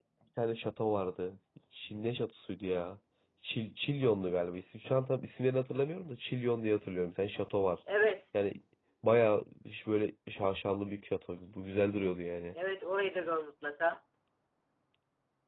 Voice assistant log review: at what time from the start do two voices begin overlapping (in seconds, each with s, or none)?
none